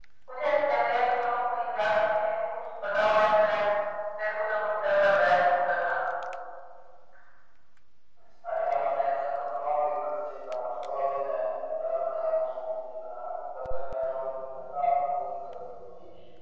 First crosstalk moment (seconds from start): none

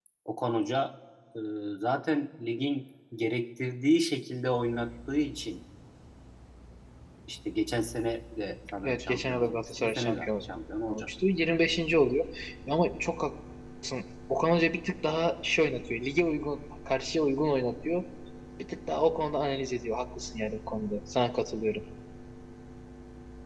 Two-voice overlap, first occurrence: 9 s

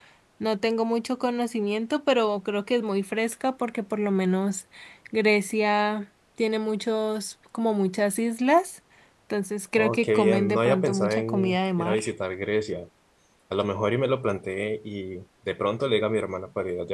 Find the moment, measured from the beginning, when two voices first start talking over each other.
10 s

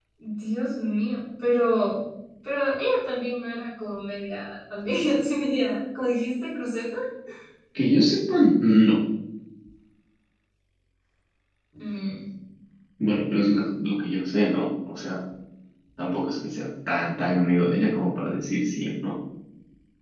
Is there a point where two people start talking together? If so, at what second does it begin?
none

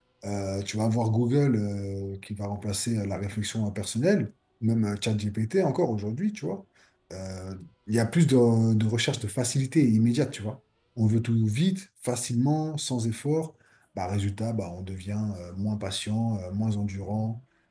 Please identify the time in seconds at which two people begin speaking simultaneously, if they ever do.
none

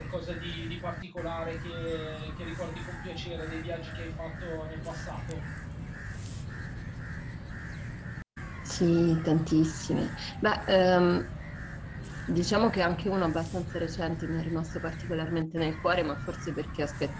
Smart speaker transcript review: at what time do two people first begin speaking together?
none

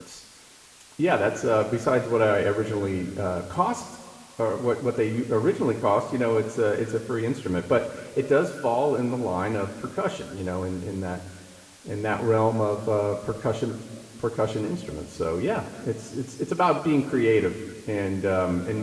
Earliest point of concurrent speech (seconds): none

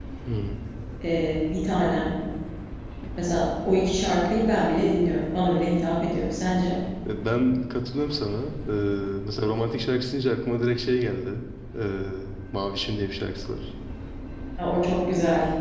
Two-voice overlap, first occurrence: none

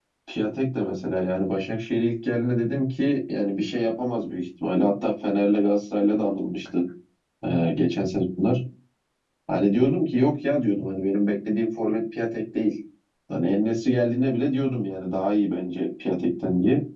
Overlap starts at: none

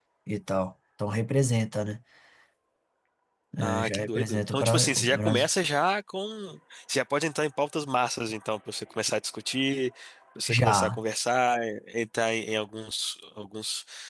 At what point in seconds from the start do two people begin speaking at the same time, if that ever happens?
4 s

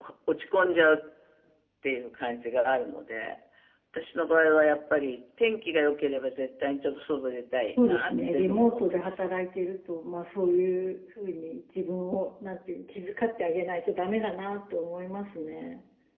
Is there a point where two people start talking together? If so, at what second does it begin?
8 s

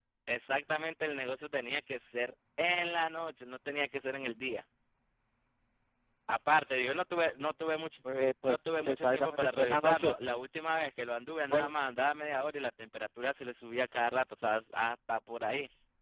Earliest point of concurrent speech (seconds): 8 s

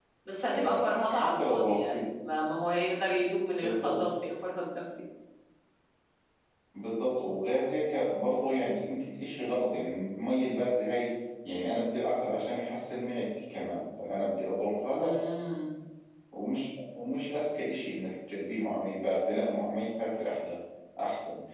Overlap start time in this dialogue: 1 s

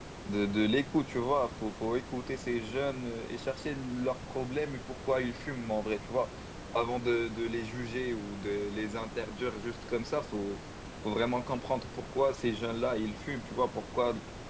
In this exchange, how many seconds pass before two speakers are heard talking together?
none

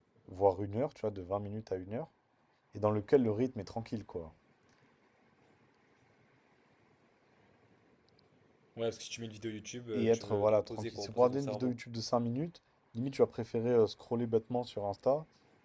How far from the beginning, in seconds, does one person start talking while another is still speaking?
10 s

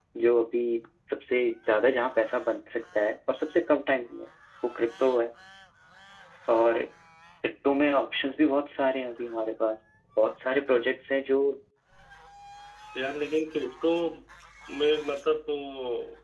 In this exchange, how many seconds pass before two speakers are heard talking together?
none

